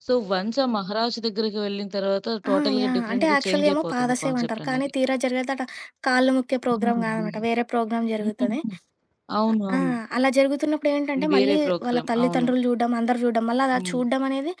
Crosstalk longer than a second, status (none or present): present